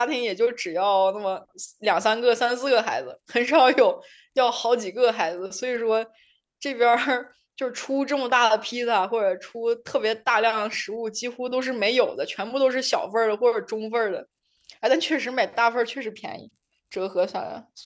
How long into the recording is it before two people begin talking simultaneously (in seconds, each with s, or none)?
none